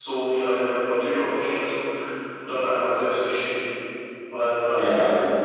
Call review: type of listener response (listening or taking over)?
listening